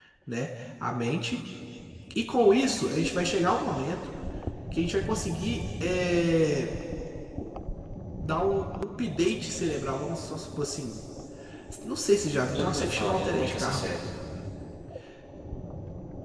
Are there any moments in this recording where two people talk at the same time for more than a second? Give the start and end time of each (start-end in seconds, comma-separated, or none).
12.5-14.0